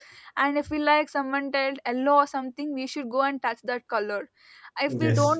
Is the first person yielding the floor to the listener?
No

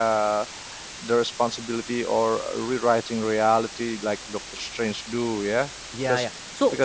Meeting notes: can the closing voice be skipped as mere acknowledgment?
No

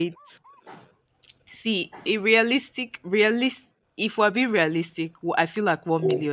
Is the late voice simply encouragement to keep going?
Yes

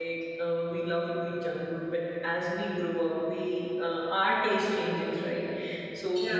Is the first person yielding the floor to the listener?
No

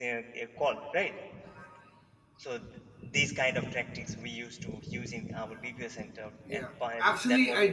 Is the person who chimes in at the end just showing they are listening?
No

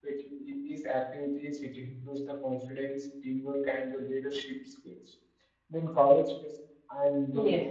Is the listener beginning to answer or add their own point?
No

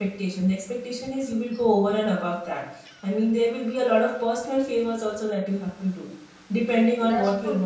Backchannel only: Yes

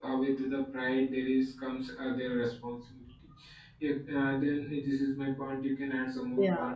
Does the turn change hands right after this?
Yes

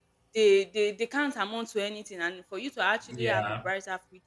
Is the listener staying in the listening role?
Yes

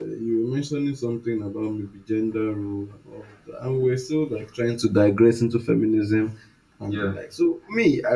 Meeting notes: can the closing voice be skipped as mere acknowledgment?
Yes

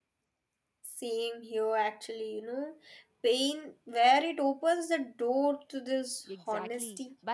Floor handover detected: Yes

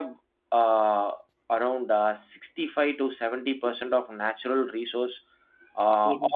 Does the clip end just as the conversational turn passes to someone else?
No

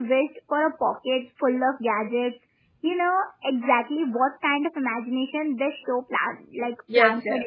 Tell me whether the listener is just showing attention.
No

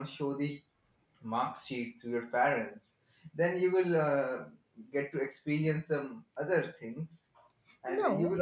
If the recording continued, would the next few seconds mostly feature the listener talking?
No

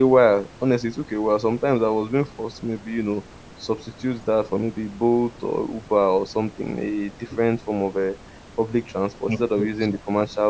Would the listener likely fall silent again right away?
Yes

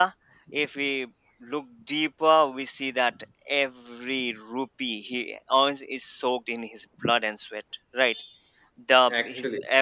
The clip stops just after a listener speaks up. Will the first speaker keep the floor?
Yes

